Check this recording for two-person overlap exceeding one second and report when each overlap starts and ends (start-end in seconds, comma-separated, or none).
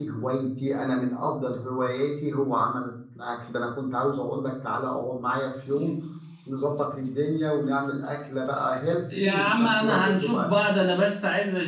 9.2-10.5